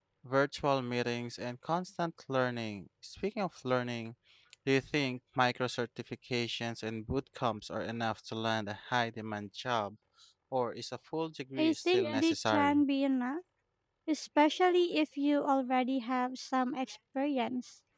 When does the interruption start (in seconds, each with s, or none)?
11.6 s